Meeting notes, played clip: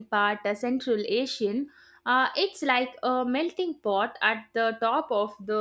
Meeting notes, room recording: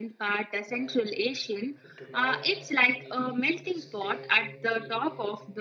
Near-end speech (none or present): present